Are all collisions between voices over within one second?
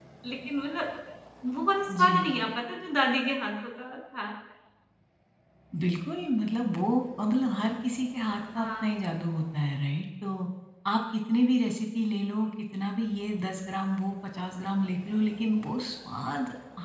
Yes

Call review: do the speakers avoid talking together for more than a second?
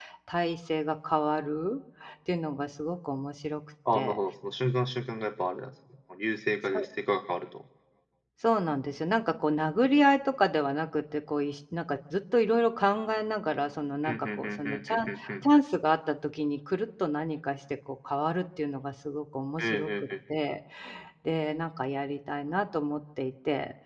No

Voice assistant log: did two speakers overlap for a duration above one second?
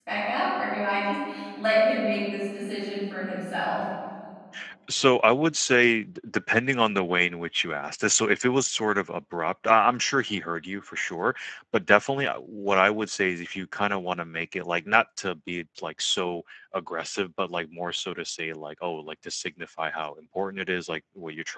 No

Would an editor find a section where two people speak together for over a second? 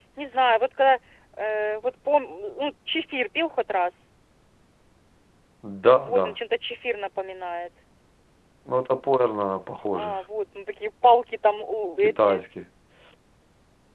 No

